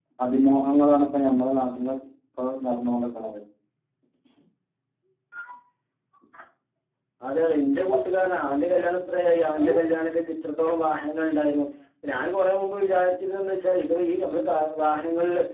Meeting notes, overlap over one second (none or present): none